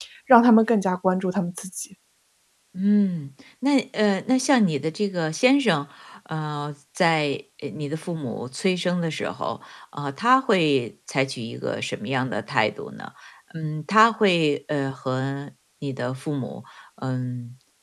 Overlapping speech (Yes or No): No